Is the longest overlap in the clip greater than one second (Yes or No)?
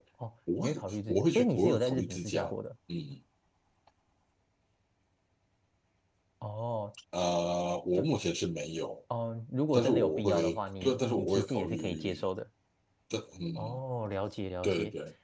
Yes